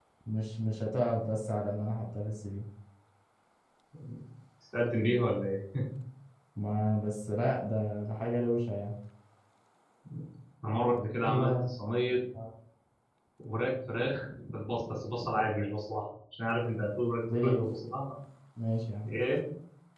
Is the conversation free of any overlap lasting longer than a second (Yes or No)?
Yes